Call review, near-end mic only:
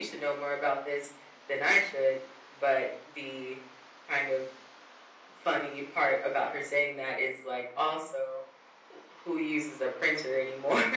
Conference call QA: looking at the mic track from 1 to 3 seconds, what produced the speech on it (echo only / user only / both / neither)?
echo only